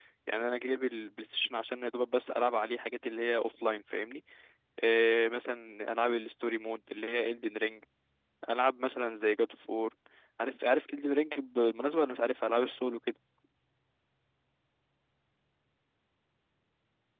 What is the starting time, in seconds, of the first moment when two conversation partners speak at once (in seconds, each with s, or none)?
none